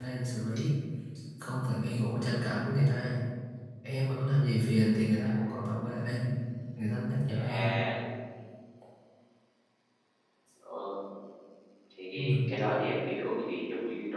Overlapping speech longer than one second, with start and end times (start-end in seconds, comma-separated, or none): none